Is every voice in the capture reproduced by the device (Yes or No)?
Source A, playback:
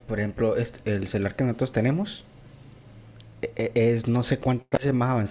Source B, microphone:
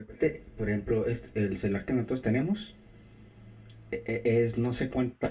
Yes